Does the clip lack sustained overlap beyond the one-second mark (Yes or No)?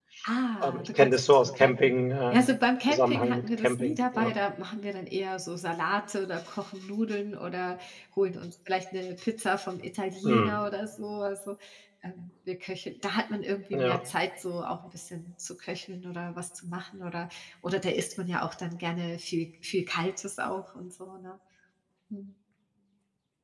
No